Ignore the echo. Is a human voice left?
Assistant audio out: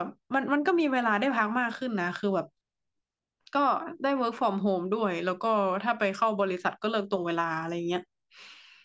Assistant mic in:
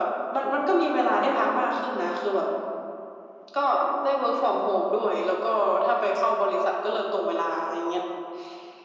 No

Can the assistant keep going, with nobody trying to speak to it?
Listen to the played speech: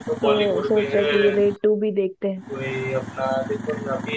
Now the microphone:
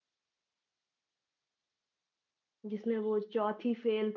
No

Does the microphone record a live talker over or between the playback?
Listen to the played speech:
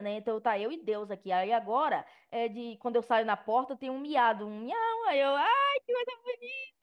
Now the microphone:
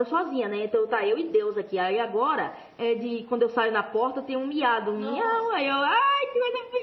Yes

